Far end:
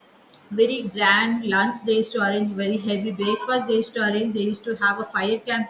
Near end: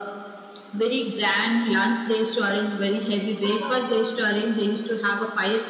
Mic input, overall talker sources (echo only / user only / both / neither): both